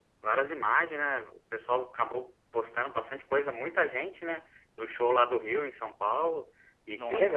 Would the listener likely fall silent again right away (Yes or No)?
No